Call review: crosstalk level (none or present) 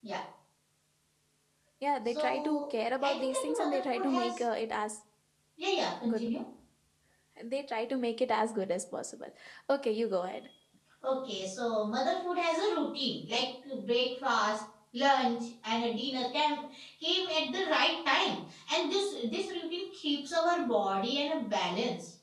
present